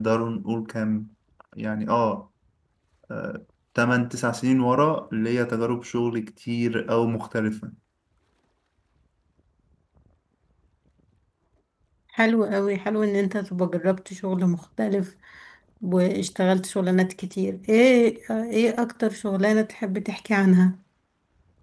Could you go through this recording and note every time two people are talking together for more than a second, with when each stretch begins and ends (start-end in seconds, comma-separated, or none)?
none